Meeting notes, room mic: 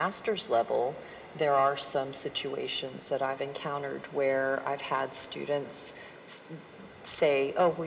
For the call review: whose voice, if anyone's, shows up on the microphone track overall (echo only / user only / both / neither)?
echo only